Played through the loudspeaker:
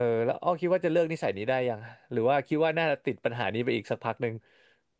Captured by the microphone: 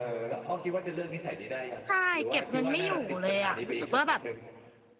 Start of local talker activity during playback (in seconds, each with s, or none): 1.8 s